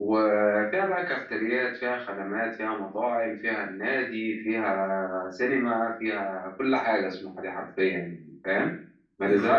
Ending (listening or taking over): listening